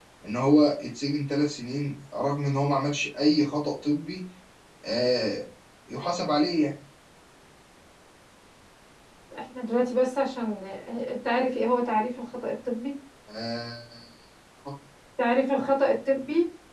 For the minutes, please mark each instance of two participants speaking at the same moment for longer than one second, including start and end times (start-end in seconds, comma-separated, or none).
none